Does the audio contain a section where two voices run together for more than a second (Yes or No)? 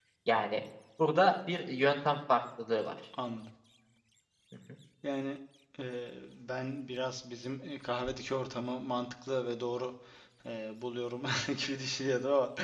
No